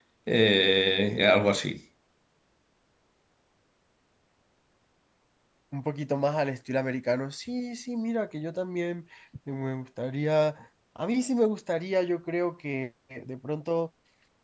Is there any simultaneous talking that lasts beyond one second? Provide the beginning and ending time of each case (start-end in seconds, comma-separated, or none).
none